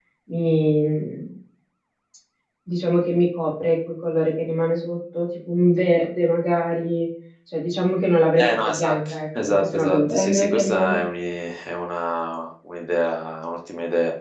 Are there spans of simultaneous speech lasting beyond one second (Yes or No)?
Yes